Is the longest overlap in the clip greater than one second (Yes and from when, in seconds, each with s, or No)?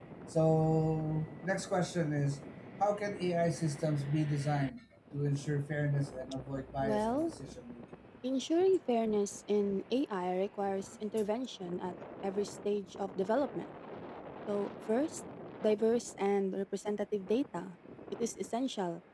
No